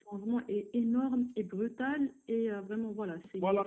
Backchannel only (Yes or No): No